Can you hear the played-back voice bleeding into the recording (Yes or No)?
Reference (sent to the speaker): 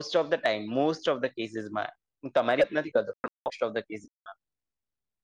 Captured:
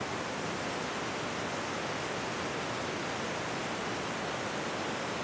No